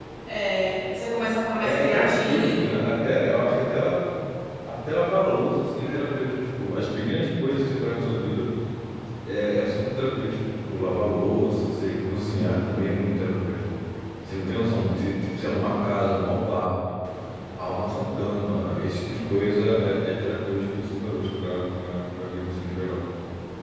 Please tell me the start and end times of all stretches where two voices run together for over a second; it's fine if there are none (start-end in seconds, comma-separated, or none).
1.6-2.9